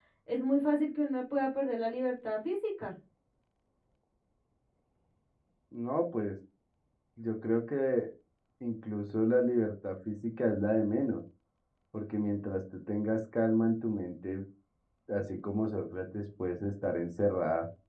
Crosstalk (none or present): none